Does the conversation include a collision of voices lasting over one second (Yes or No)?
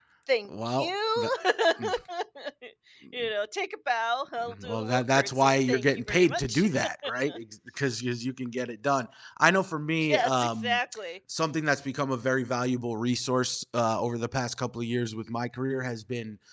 Yes